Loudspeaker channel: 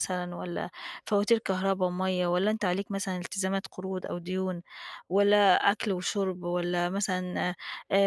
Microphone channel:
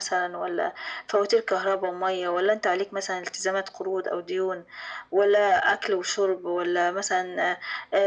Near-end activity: none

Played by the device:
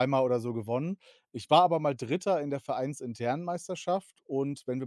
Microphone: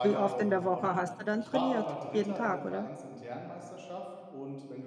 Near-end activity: present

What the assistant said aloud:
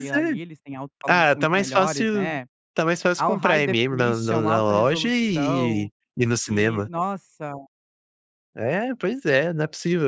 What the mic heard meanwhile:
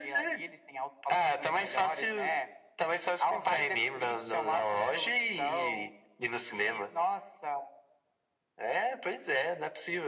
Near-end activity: none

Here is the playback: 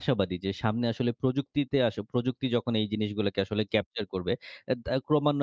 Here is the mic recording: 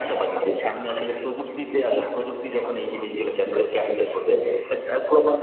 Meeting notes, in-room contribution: none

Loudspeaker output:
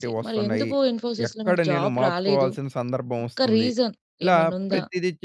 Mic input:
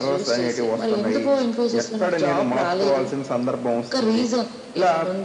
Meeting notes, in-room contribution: none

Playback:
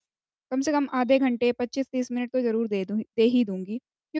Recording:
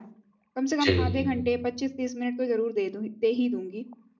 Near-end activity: present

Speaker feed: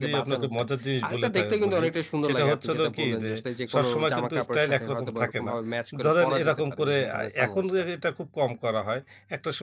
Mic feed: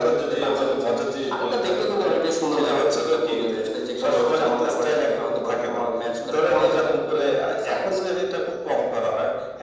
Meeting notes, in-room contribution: none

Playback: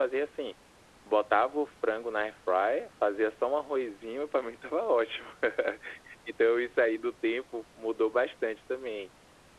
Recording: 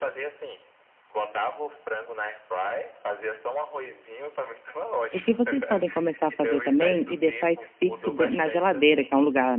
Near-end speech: present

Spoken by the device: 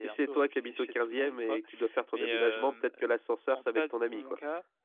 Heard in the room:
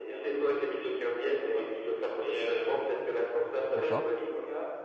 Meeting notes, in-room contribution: present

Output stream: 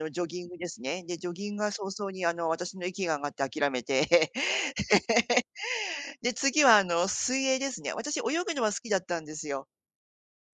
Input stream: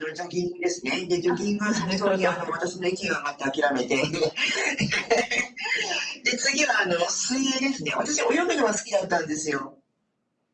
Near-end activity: present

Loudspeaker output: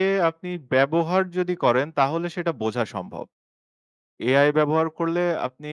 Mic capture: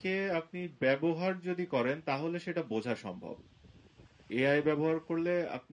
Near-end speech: none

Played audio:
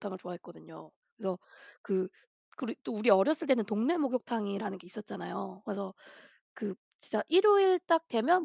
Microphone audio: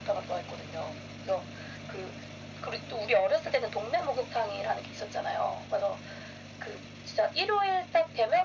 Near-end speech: none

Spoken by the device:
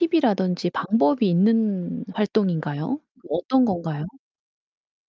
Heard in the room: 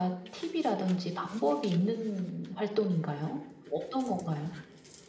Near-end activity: none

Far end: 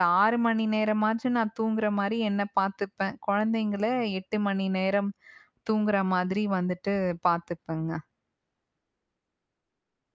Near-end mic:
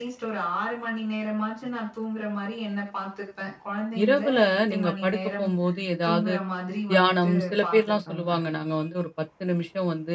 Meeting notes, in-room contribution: present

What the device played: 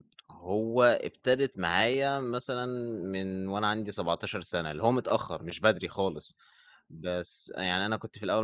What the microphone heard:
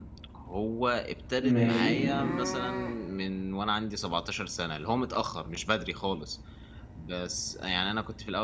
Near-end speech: present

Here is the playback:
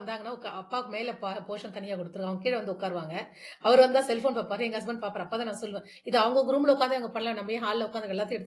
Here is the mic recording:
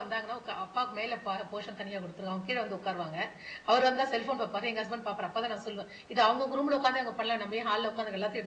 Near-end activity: none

